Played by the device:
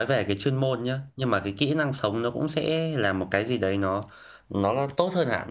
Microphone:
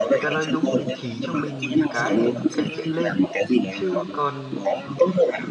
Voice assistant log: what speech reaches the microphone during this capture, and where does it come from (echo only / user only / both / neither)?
both